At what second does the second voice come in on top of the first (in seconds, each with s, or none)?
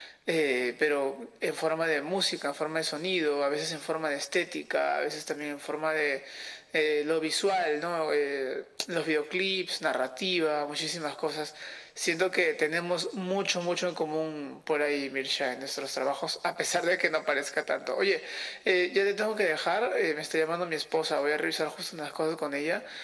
none